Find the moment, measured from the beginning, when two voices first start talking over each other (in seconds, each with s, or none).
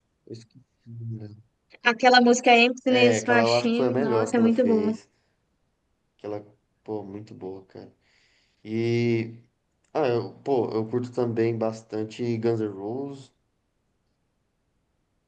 2.9 s